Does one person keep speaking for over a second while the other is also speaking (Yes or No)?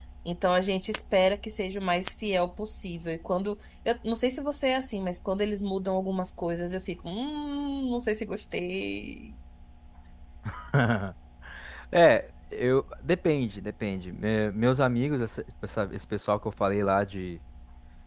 No